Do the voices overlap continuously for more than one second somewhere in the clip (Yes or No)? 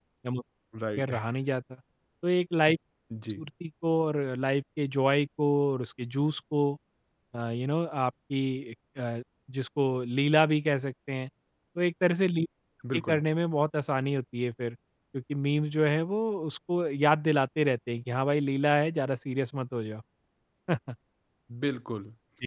No